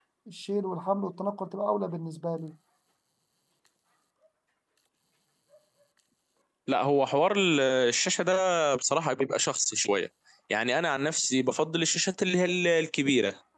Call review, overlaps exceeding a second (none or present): none